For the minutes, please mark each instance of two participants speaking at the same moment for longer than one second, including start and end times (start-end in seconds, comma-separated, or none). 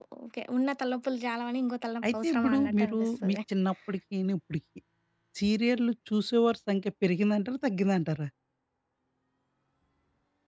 2.1-3.4